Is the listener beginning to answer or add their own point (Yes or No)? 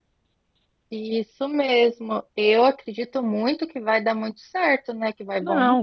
Yes